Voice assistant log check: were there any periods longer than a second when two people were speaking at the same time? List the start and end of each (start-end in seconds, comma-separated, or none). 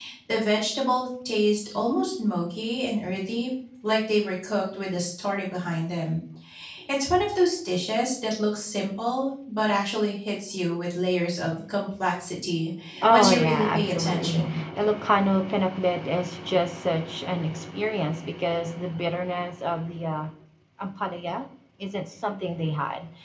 13.1-14.4